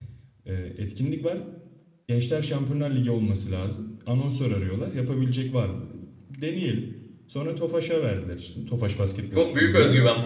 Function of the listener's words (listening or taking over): taking over